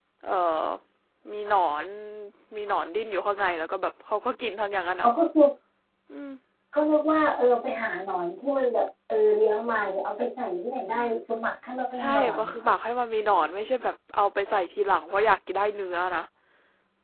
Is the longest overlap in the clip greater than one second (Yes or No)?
No